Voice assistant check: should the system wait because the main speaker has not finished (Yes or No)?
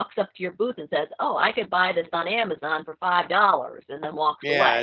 No